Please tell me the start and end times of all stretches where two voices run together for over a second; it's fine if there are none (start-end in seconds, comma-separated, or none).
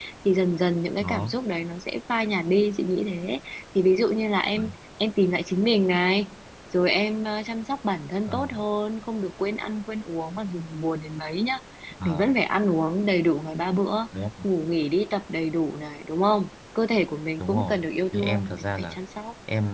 17.4-19.0